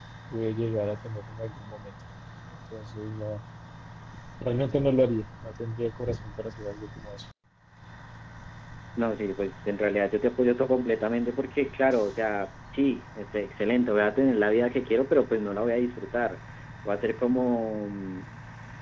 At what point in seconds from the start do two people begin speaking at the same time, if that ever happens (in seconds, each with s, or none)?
none